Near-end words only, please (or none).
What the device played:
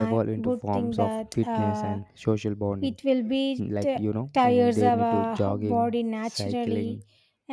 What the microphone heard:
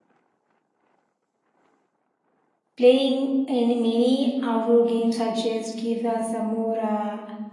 Playing in many outdoor games such just give us a more uh,